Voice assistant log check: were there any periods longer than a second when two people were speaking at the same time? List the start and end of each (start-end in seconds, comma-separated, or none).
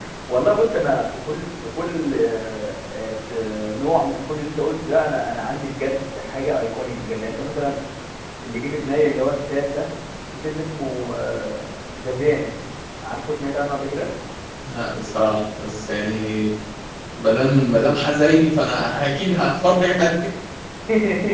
none